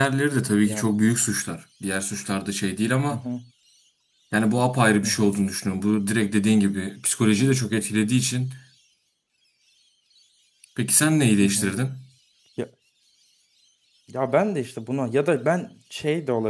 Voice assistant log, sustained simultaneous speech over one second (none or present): none